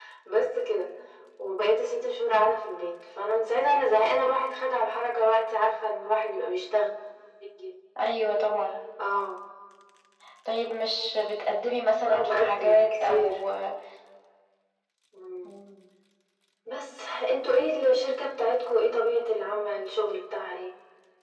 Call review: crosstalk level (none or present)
present